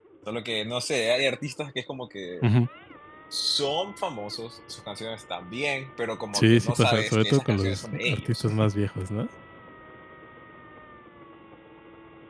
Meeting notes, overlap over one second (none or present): present